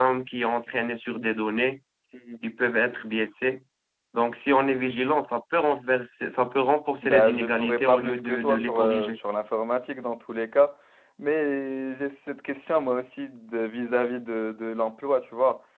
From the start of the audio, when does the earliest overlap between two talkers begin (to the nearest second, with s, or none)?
7 s